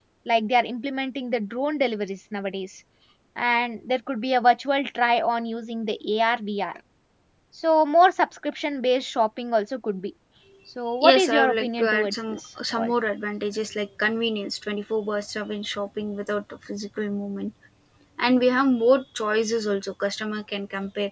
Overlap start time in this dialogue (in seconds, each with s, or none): 11.1 s